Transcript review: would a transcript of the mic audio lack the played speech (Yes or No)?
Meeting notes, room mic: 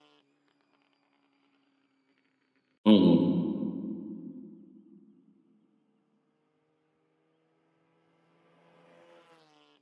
Yes